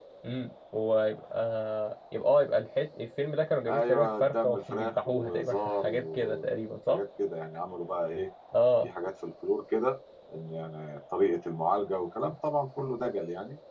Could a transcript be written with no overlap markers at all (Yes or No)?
No